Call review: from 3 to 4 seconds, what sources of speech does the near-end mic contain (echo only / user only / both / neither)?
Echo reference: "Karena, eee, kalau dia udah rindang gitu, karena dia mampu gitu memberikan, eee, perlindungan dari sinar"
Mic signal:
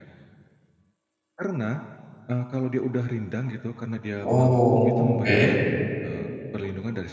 echo only